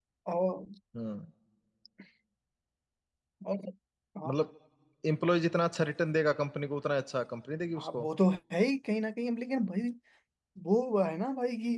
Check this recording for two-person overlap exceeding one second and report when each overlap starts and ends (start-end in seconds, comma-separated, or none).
none